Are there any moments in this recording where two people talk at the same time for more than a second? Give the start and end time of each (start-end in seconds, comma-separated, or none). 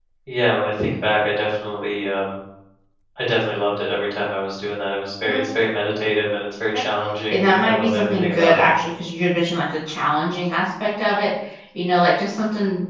7.3-8.7